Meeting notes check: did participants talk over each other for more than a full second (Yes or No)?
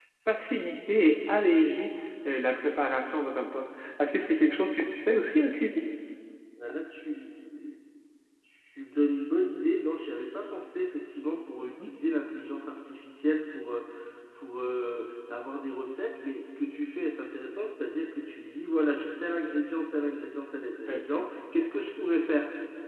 No